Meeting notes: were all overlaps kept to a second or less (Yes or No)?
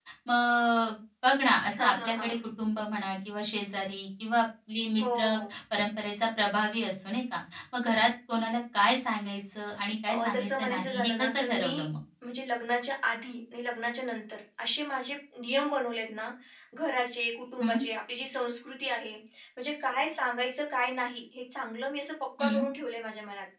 No